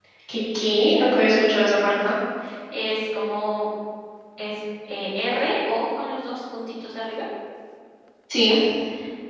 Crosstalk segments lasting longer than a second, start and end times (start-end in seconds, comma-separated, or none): none